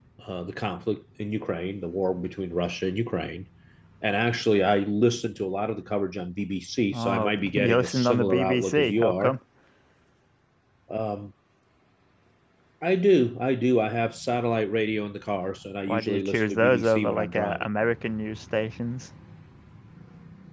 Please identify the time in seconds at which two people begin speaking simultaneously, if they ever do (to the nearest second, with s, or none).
7 s